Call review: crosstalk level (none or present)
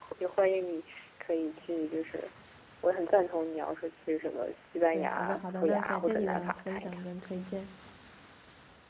present